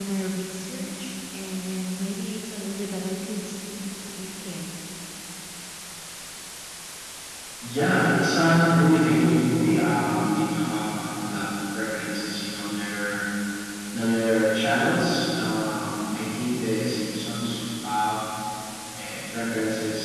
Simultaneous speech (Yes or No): No